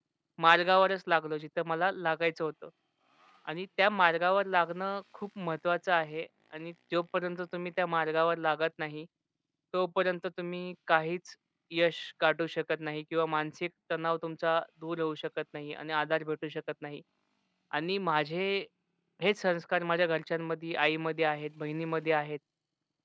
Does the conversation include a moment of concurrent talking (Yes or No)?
No